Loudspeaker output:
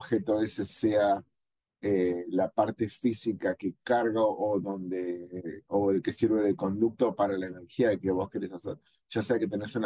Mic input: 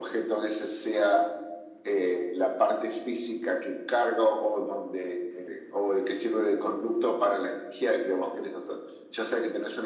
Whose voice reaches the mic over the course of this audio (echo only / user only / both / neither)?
echo only